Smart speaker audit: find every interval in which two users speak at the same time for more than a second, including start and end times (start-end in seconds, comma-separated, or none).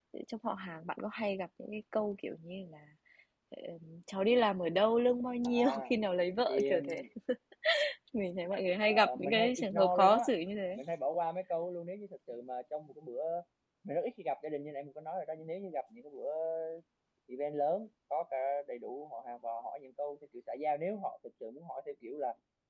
8.9-10.3